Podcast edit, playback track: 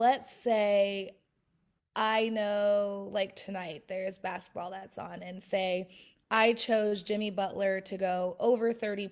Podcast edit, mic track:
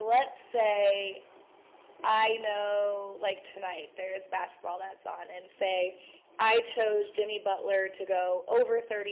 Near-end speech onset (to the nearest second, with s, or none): none